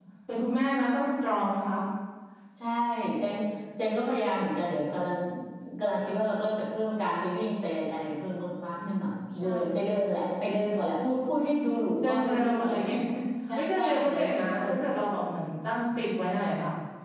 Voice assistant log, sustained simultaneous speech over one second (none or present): present